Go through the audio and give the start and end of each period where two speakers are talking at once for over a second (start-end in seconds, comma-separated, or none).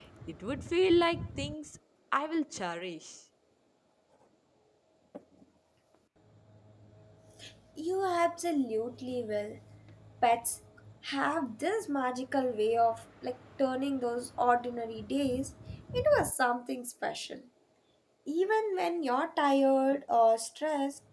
none